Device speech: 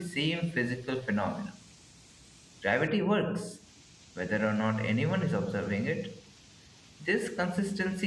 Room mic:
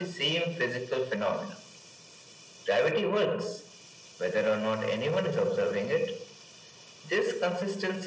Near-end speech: none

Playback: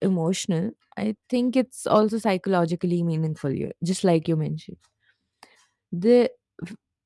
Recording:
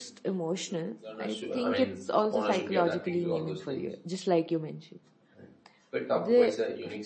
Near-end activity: present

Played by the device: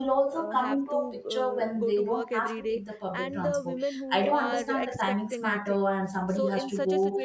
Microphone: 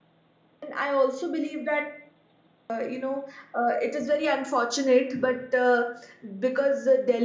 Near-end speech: present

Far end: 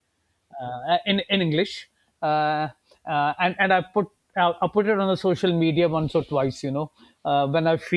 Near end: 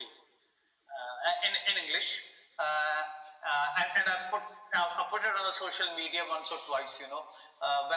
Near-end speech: none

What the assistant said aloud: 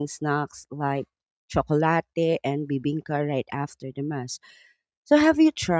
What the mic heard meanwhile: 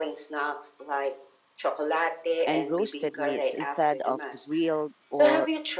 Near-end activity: present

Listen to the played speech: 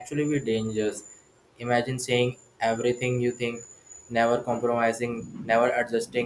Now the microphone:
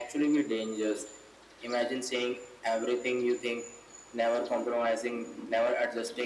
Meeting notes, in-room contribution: none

